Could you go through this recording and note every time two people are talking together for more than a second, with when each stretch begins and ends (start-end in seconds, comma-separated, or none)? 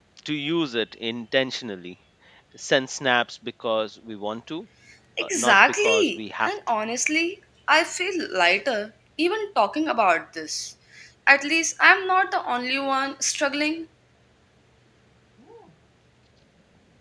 5.2-6.5